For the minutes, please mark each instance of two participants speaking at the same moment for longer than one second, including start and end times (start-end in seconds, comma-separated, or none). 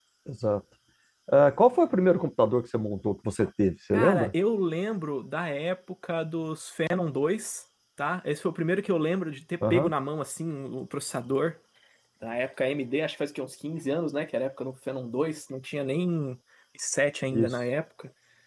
none